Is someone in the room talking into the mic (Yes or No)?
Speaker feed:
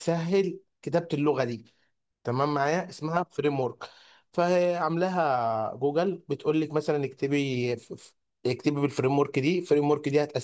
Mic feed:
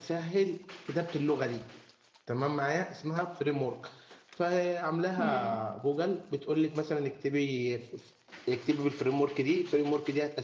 Yes